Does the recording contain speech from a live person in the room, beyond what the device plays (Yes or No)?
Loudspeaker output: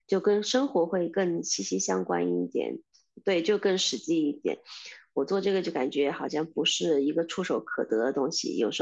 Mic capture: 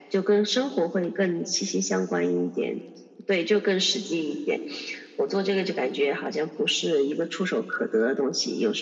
No